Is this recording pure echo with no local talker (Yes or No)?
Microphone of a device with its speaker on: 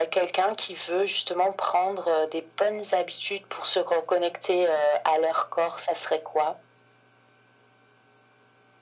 Yes